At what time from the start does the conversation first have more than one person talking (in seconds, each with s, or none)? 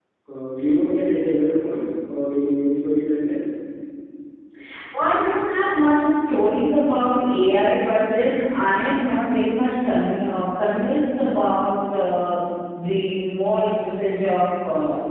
none